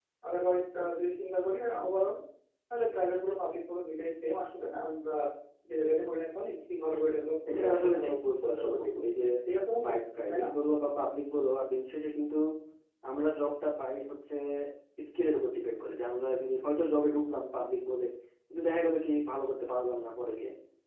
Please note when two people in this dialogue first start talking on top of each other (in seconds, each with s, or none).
6.9 s